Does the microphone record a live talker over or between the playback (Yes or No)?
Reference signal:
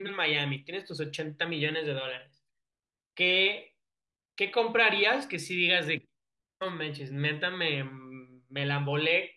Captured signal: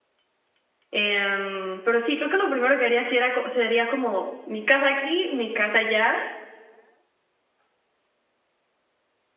Yes